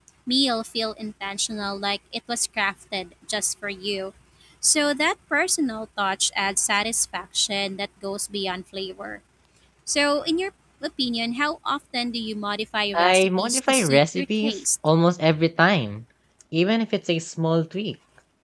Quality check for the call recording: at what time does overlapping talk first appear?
12.9 s

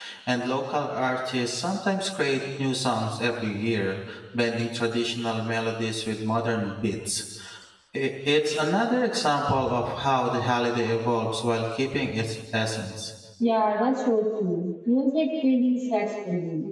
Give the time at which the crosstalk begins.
none

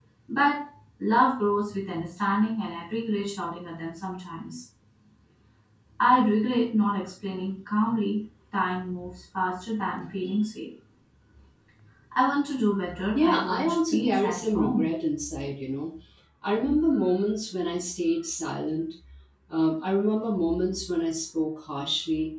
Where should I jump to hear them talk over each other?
13.0 s

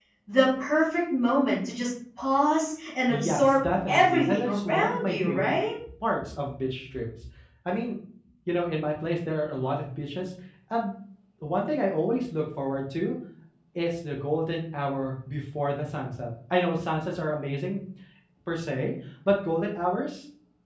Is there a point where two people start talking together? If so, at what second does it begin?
3.1 s

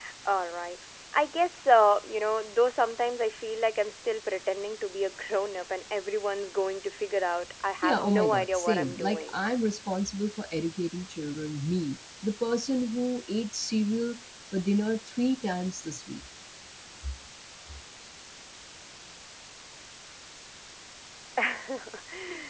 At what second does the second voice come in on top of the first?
7.8 s

